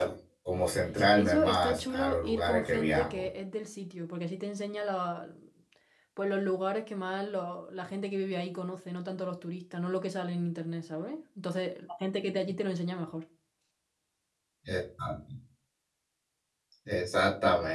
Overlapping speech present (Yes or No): Yes